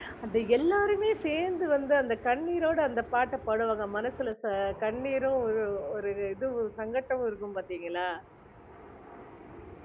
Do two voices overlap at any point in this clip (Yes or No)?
No